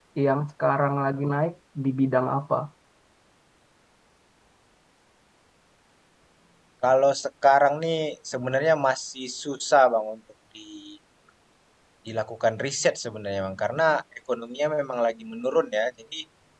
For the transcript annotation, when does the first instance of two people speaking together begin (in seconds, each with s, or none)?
none